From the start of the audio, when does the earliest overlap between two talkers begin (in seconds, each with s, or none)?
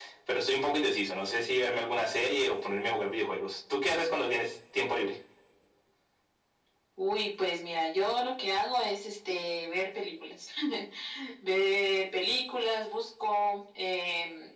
none